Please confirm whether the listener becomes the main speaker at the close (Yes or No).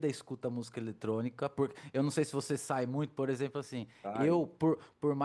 No